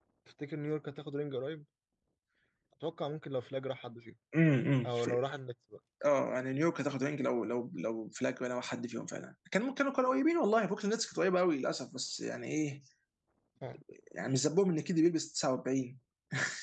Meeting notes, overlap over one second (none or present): none